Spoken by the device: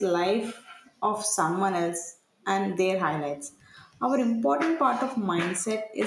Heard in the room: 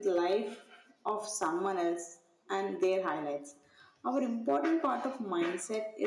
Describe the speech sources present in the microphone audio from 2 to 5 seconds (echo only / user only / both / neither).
echo only